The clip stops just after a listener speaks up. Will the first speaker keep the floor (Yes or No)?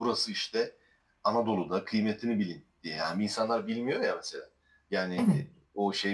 Yes